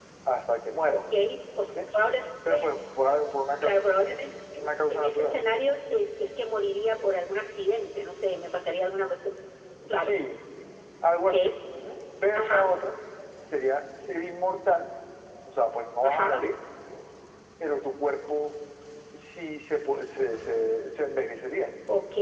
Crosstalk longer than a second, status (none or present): none